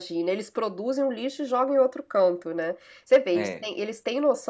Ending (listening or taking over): listening